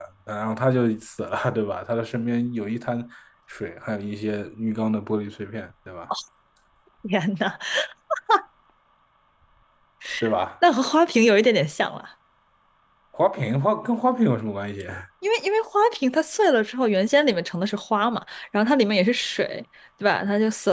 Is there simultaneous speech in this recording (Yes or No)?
No